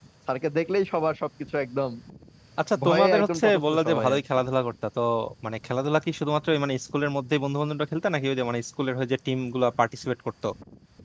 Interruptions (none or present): present